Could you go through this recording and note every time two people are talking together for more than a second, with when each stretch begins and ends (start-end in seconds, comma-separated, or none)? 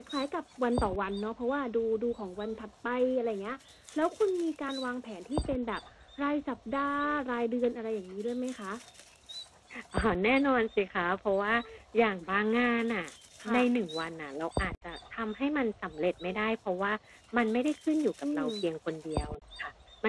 none